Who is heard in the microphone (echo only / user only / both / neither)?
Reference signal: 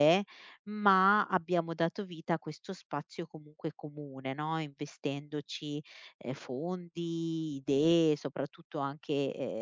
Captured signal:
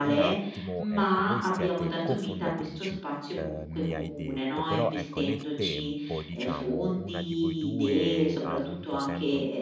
both